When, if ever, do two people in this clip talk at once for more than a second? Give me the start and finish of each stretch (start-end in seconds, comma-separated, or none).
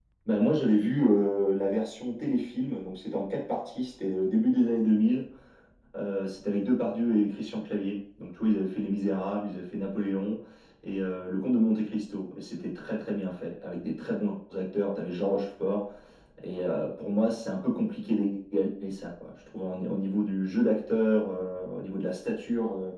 none